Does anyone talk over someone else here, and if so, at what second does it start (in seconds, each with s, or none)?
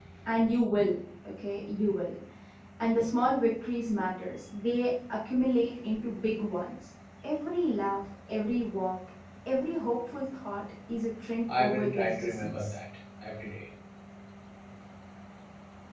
11.5 s